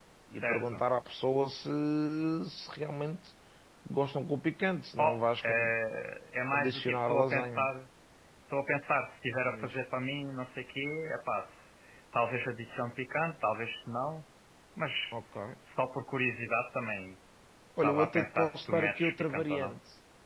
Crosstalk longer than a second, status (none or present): present